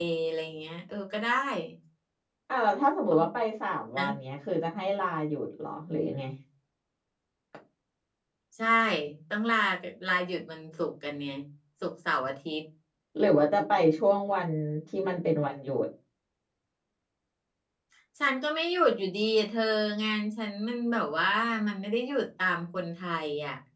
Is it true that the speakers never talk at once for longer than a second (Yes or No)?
Yes